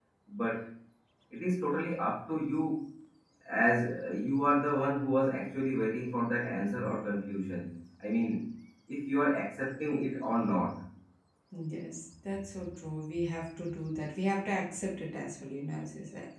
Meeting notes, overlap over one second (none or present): none